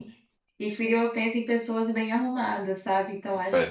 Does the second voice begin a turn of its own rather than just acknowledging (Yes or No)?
No